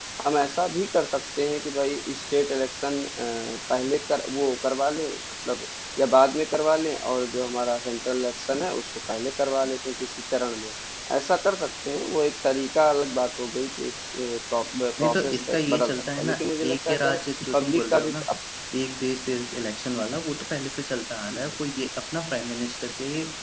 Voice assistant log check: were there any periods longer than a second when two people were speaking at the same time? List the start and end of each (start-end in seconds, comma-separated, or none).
15.0-16.4, 16.7-18.1